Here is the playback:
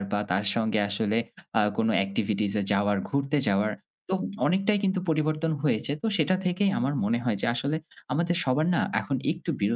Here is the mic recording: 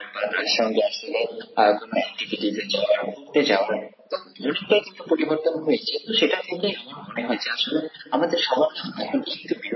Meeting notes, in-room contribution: none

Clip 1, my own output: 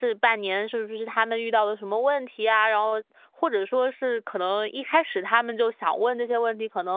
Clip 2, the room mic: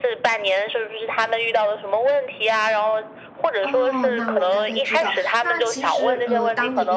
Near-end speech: present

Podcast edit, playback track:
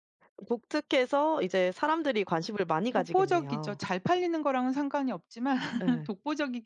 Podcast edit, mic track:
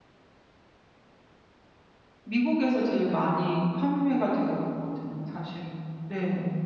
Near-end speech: present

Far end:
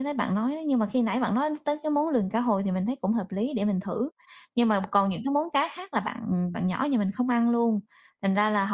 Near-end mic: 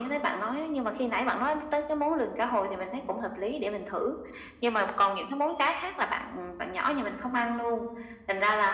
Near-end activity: none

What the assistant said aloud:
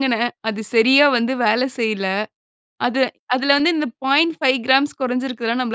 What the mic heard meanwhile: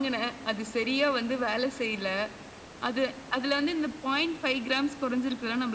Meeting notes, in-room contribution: none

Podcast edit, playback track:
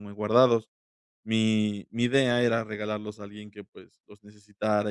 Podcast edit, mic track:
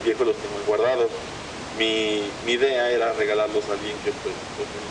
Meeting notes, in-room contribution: none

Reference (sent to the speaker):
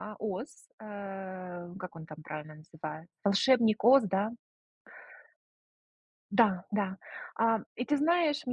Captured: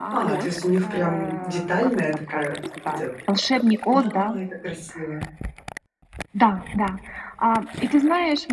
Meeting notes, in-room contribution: present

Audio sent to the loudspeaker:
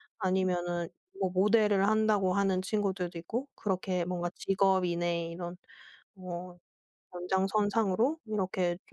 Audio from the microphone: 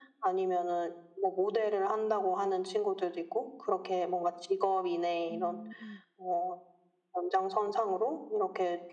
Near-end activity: present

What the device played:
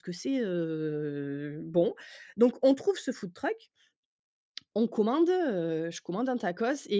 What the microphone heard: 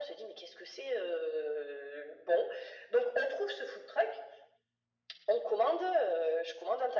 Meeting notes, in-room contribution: none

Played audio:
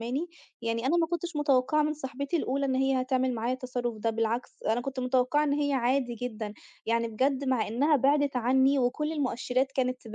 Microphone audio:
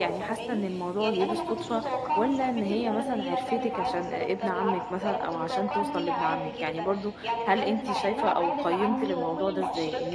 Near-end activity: present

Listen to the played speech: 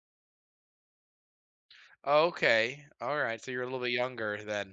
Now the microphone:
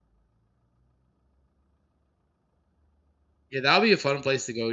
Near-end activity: present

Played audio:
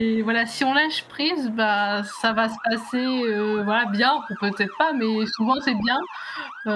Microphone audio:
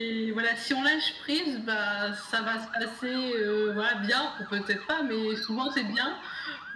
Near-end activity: none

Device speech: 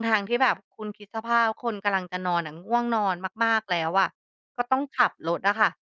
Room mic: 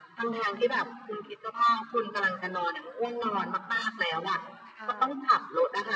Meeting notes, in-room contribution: present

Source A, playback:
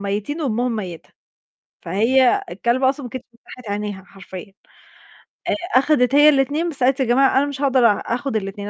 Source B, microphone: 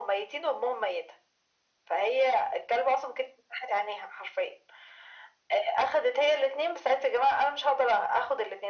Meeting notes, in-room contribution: none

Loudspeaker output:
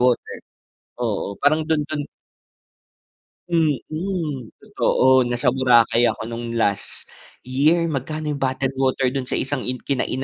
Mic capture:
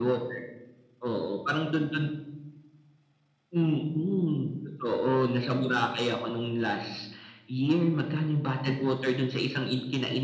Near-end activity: none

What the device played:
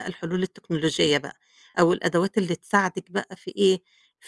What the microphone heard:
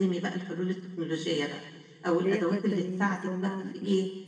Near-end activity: present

